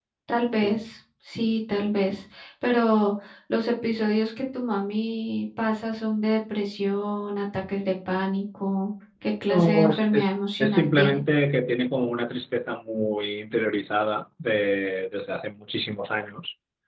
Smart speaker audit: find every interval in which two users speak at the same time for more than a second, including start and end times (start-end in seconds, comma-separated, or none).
9.5-11.2